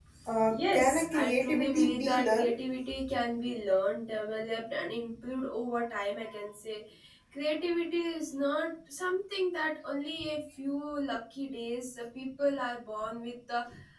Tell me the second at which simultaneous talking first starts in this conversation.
0.5 s

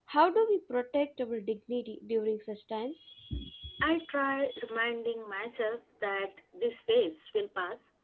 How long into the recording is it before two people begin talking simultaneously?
none

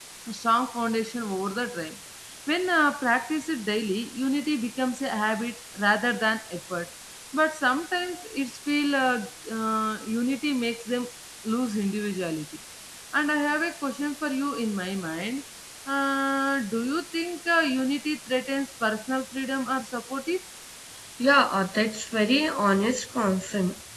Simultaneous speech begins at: none

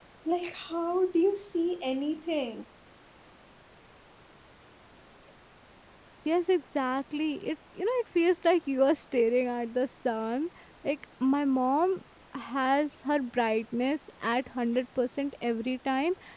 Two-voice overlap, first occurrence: none

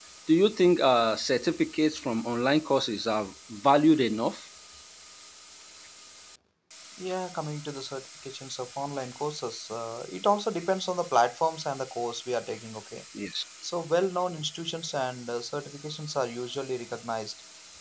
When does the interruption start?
none

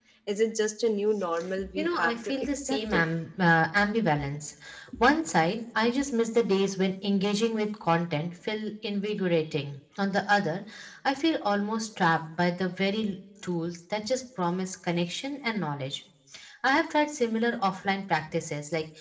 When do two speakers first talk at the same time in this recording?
1.8 s

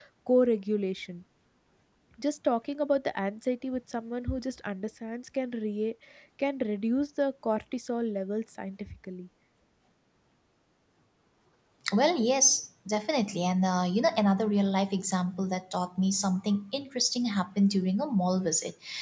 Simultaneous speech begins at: none

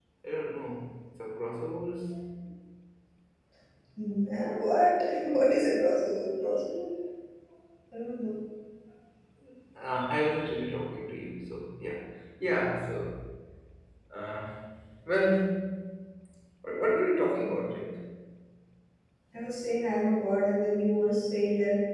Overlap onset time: none

